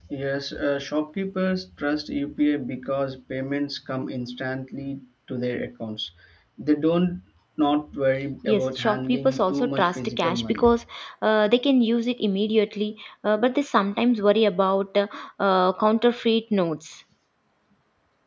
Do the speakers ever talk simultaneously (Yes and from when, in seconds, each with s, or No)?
Yes, from 8.4 s